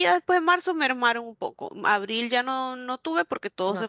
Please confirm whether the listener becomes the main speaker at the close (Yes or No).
No